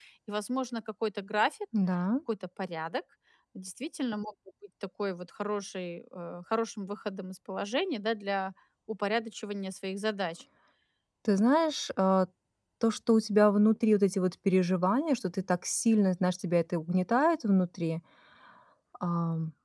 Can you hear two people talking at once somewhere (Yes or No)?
No